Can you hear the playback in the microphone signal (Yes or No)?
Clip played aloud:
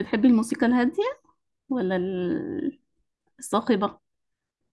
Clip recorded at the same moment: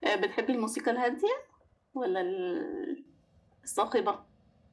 Yes